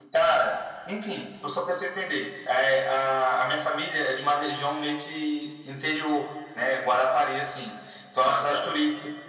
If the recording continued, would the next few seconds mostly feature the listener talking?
No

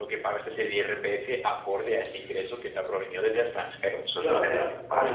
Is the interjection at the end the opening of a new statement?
Yes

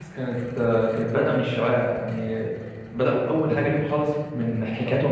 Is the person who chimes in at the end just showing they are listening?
Yes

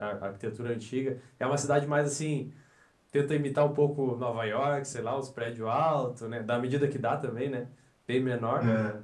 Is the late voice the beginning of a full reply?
No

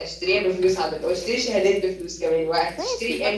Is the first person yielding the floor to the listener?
Yes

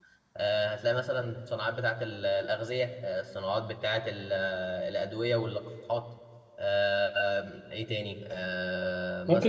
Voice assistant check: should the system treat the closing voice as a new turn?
Yes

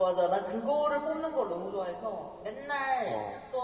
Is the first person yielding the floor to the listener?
No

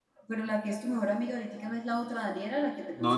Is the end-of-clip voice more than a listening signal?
Yes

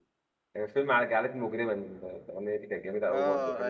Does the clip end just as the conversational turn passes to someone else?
Yes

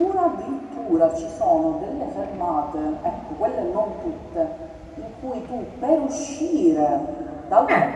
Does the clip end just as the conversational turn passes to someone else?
No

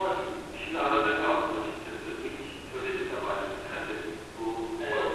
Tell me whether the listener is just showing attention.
Yes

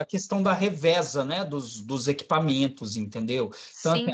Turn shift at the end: No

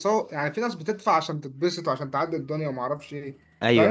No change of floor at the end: No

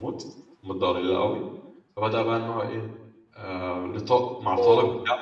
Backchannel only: Yes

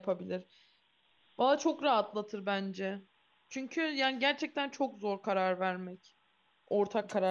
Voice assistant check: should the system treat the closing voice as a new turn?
Yes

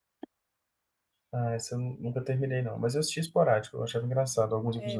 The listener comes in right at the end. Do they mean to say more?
Yes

